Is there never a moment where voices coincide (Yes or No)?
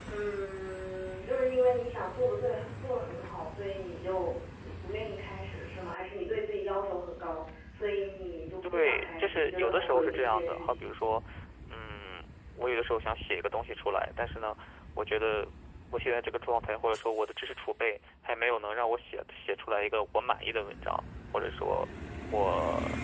No